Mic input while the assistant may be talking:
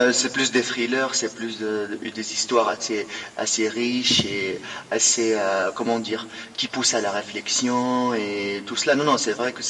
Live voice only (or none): none